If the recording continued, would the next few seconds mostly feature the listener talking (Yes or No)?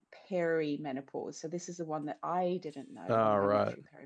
No